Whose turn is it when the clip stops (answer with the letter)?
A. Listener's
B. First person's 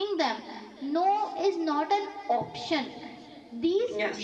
B